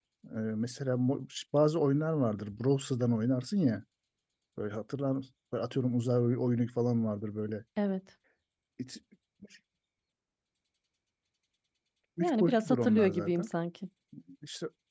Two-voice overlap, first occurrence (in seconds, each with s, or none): 12.2 s